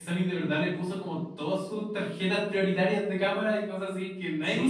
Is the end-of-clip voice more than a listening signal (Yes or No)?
Yes